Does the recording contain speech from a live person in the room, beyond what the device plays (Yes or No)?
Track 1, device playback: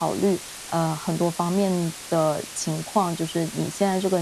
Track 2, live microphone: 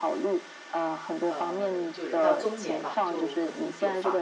Yes